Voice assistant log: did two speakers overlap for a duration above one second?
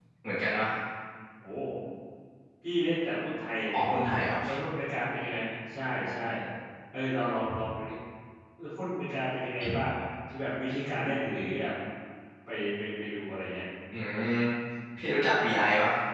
No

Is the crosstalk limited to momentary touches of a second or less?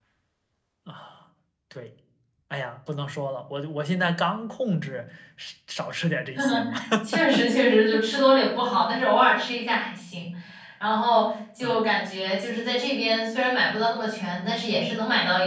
Yes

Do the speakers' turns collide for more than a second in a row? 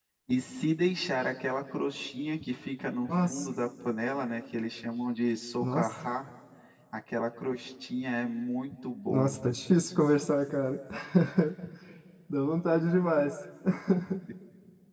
No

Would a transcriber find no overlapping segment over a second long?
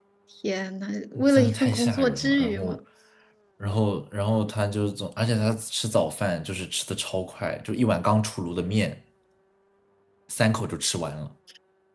No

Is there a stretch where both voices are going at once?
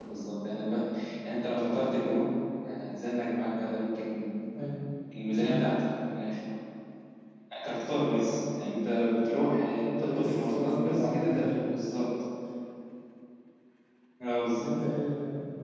Yes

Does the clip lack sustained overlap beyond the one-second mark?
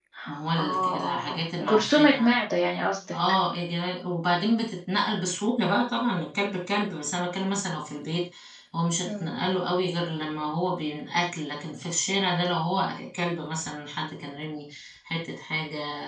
No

